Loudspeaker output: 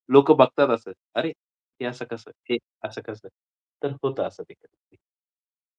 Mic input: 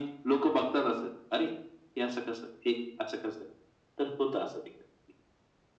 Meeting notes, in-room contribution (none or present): none